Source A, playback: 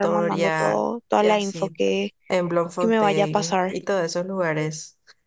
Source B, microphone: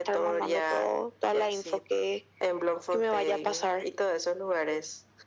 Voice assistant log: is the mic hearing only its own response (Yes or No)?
Yes